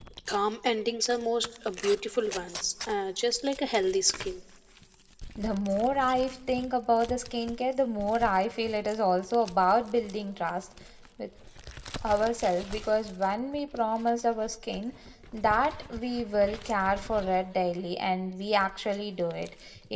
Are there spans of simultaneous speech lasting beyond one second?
No

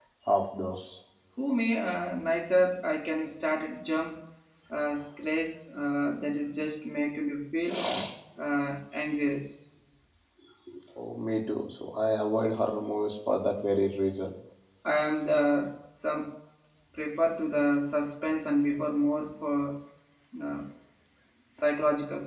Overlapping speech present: No

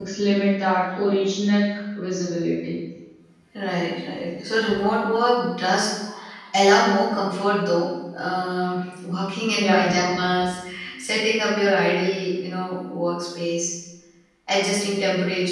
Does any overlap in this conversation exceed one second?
No

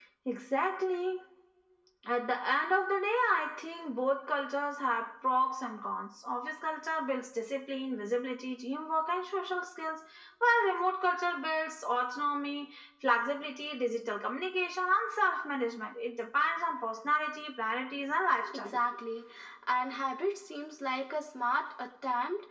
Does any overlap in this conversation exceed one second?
No

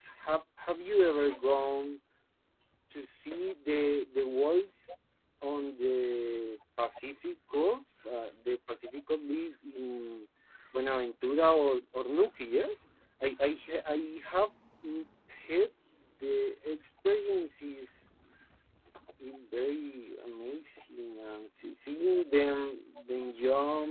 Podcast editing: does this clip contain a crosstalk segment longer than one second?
No

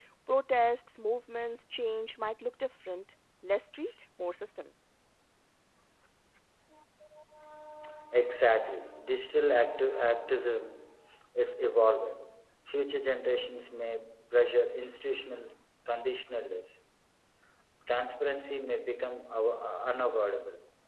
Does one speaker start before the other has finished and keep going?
No

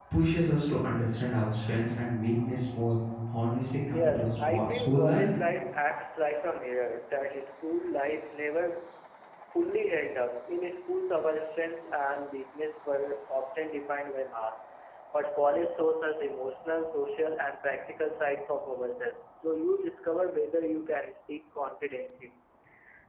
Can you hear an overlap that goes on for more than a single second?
Yes, from 3.9 s

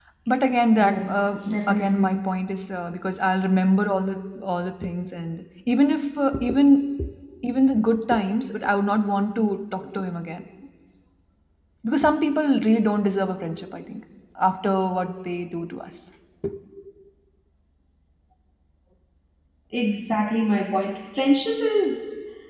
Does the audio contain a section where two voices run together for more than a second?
Yes, from 0.8 s

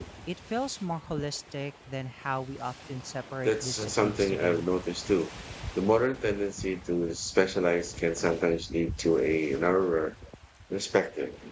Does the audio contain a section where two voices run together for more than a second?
Yes, from 3.4 s

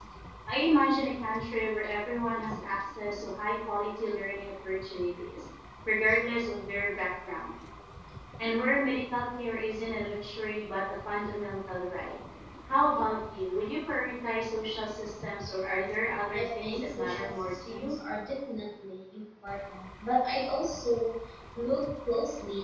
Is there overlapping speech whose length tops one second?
Yes, from 16.3 s

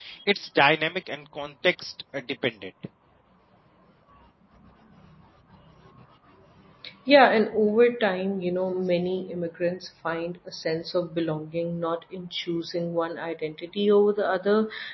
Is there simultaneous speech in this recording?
No

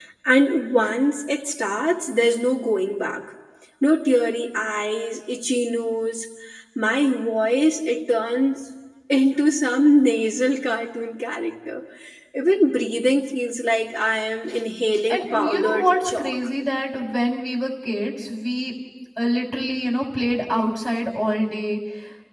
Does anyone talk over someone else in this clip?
Yes, from 15.1 s

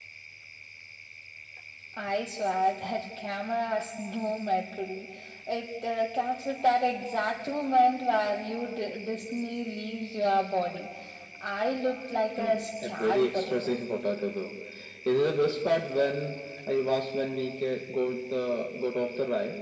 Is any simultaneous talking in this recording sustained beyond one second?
Yes, from 12.4 s

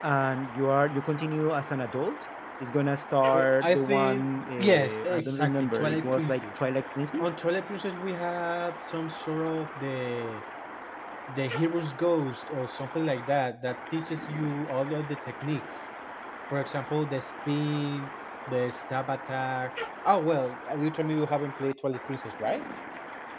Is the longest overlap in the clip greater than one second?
Yes, from 3.3 s

